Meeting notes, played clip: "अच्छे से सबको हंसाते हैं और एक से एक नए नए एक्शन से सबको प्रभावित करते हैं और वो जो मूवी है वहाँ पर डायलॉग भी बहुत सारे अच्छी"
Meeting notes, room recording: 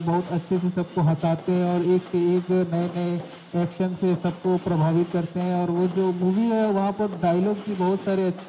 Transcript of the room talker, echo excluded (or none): none